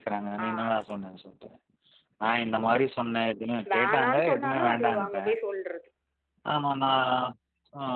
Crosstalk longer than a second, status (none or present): present